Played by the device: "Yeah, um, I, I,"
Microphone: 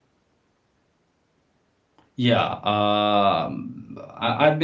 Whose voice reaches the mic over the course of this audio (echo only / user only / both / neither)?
echo only